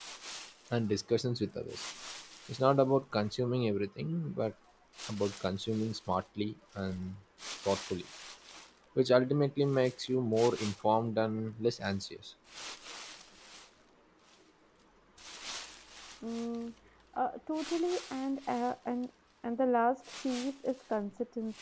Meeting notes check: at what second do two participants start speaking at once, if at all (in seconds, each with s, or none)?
none